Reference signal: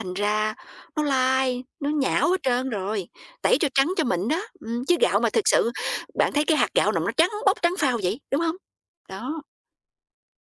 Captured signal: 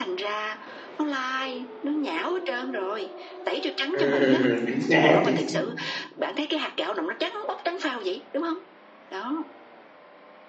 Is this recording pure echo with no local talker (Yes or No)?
No